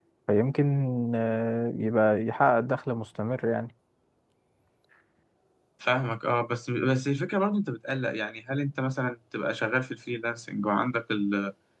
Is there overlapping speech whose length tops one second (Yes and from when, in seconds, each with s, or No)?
No